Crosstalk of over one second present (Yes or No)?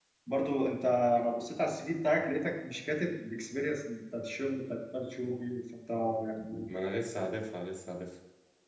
No